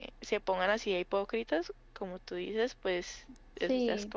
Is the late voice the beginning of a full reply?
Yes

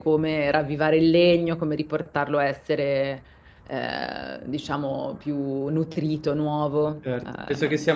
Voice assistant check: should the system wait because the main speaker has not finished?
No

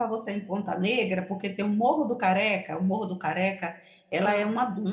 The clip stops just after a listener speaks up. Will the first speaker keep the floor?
Yes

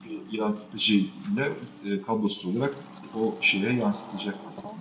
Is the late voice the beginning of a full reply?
Yes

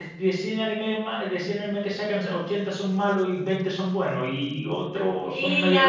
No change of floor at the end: No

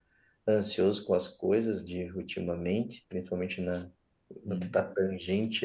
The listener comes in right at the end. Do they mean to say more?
No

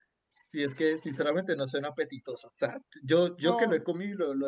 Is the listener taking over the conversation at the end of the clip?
No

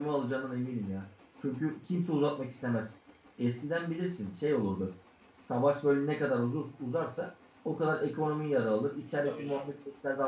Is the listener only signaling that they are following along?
Yes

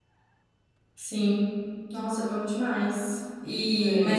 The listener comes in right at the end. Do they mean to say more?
No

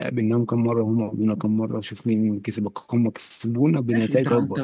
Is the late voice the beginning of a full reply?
Yes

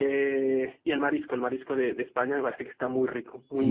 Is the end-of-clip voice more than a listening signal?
Yes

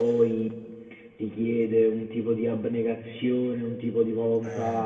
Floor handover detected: No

